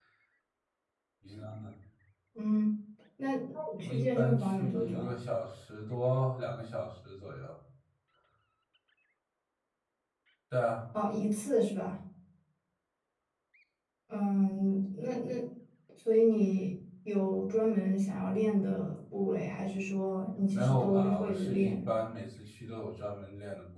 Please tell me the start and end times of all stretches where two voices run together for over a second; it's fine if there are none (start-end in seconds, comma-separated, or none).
3.8-5.1, 20.4-21.9